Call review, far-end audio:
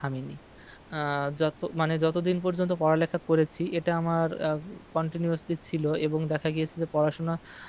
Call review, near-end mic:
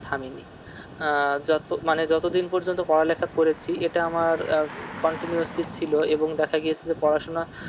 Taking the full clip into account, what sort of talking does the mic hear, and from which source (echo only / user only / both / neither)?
echo only